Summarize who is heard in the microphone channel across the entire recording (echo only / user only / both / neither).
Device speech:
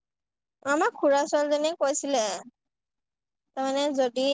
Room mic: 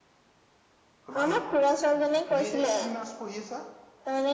both